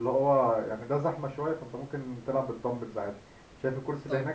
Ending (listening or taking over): listening